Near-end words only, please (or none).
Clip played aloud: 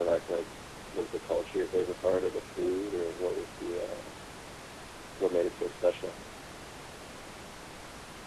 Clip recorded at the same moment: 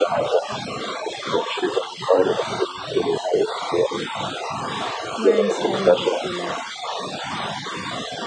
Where in Spain does he live?